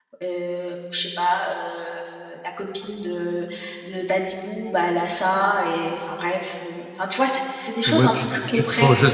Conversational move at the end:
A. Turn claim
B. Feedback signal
A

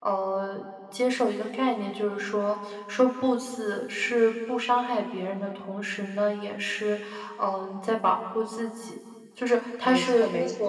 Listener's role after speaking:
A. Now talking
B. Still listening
A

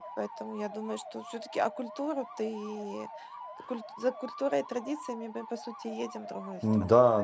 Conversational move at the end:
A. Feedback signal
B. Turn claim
B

